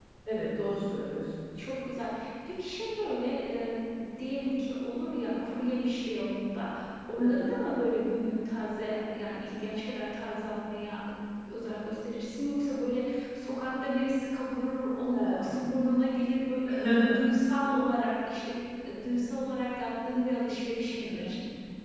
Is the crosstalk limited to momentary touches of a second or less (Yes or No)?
Yes